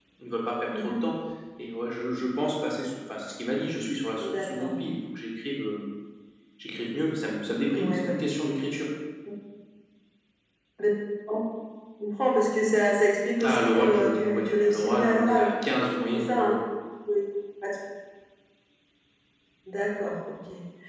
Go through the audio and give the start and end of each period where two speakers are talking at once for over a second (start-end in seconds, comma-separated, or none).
13.4-15.5